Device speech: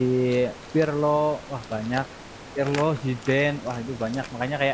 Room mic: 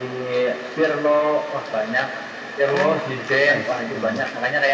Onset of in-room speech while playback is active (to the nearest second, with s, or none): 3 s